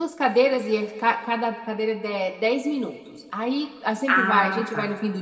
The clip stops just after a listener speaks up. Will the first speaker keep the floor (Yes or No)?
Yes